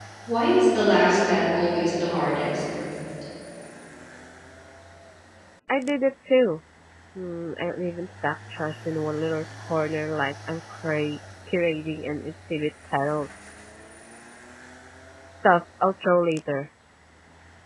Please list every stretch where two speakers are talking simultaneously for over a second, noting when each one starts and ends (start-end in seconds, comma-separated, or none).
none